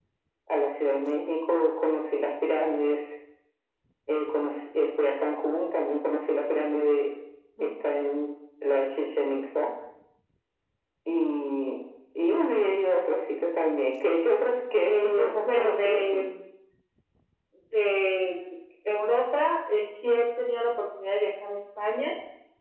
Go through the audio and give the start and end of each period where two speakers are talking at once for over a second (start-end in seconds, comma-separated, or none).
14.9-16.2